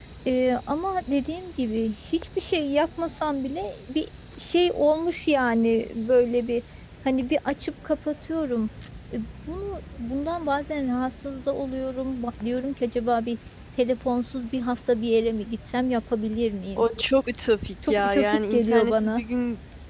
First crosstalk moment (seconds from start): 17.8 s

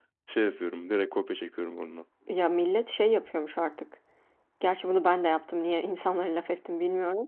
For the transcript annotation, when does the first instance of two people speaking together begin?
none

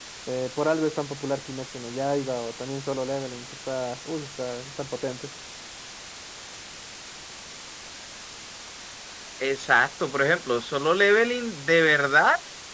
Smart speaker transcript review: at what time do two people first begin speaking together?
none

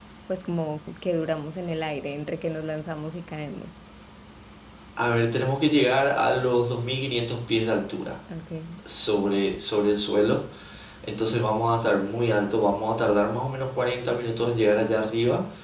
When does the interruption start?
none

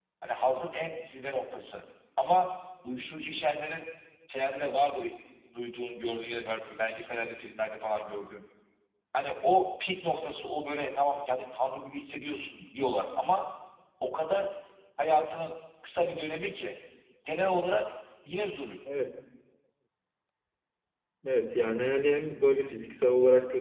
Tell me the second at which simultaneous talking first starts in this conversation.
none

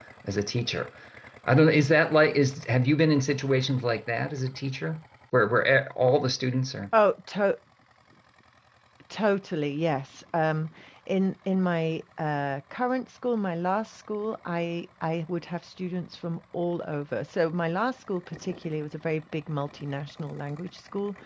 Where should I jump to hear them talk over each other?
none

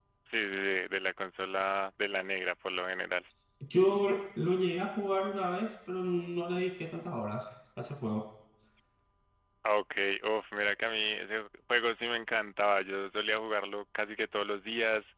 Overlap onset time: none

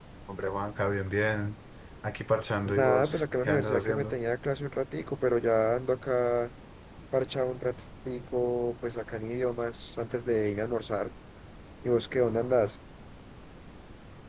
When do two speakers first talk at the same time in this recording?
2.8 s

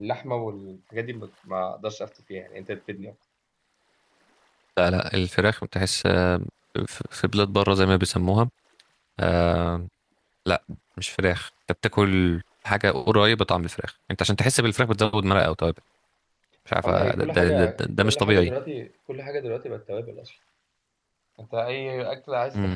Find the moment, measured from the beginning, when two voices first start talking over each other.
16.8 s

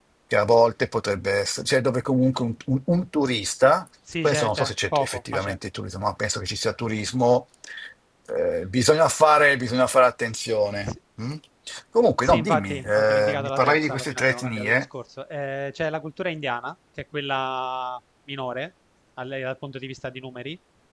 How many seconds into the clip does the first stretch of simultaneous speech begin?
4.2 s

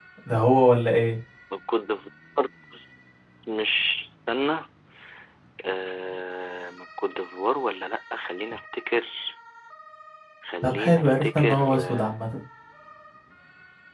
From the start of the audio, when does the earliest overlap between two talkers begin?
10.6 s

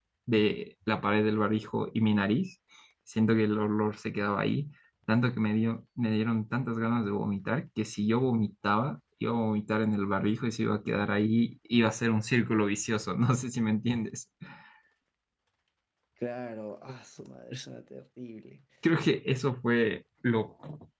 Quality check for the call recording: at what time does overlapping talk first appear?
none

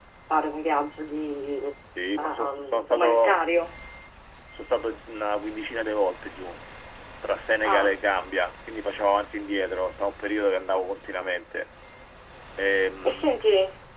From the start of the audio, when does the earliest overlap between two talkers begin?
2.2 s

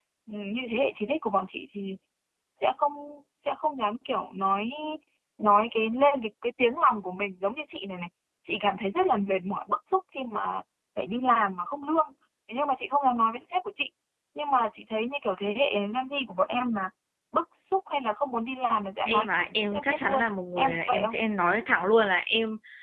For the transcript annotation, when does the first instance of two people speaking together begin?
19.0 s

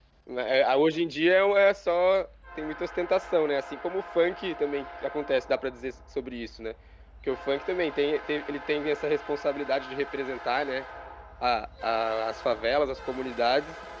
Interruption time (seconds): none

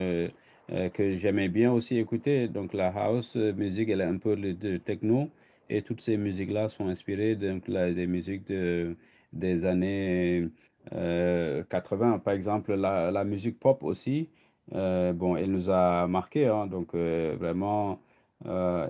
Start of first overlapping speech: none

